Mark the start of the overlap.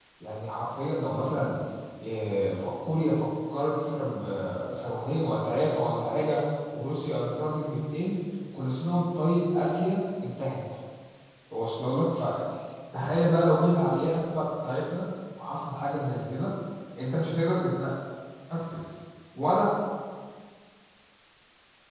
none

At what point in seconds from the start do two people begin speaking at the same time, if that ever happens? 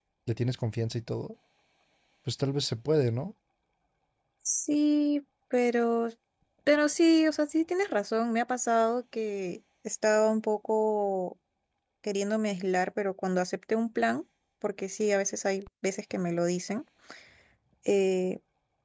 none

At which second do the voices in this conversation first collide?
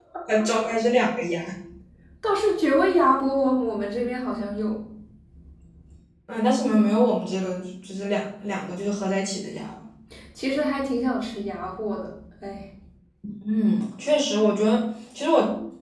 none

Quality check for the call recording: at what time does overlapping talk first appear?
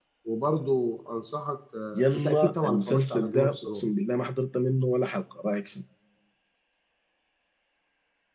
1.9 s

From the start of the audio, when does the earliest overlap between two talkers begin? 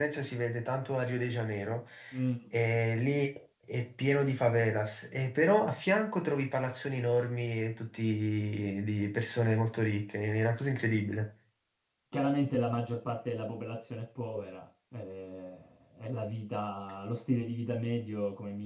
none

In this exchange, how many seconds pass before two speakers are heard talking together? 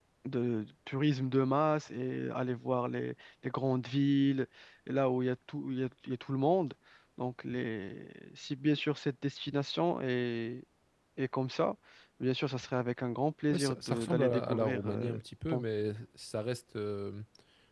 13.5 s

